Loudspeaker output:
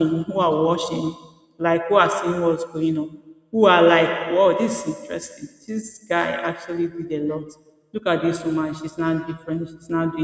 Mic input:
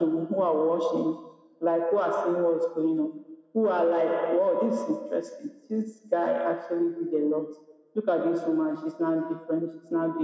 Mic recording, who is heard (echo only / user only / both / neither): echo only